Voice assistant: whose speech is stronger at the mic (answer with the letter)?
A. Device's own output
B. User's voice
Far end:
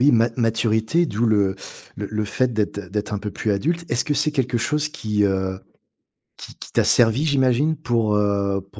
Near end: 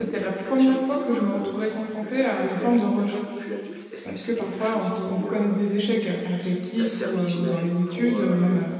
B